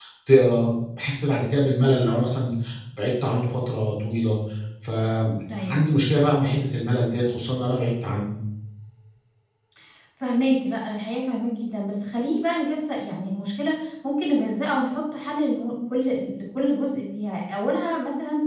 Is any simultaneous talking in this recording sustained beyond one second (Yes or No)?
No